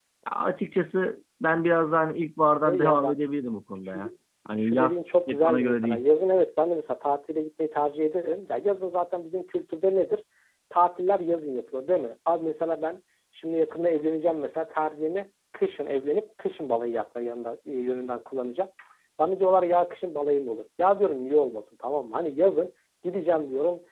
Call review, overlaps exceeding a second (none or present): present